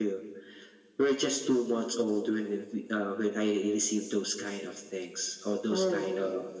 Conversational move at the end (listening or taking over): listening